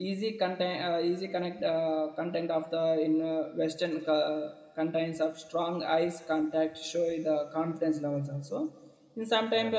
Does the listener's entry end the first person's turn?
No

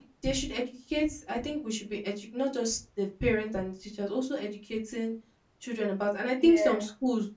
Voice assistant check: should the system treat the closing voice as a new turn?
No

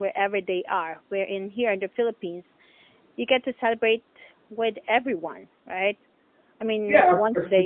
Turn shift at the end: Yes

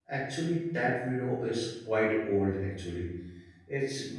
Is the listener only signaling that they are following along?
Yes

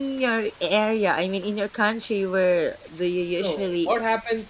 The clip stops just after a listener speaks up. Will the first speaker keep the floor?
No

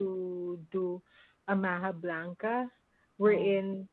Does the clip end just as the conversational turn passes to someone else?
No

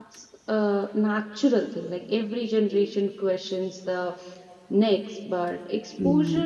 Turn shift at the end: No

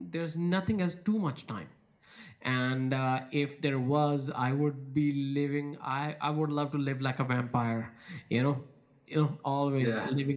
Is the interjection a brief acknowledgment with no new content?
Yes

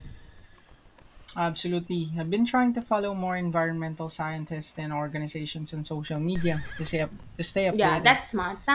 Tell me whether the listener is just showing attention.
No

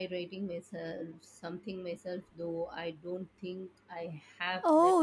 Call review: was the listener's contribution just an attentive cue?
No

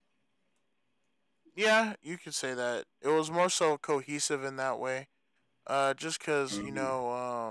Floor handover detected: No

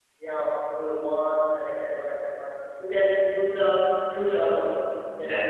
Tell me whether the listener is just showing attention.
Yes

